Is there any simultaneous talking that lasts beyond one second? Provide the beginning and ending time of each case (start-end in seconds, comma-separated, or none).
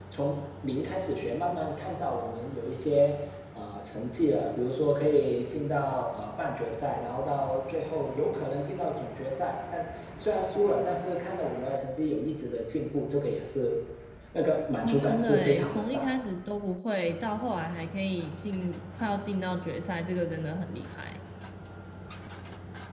14.8-16.1